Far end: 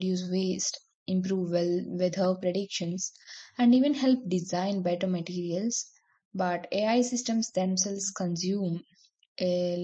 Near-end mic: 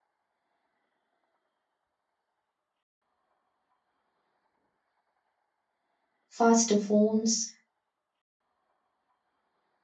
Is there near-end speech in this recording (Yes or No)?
Yes